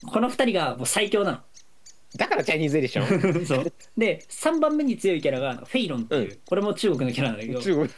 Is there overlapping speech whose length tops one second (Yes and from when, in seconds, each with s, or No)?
No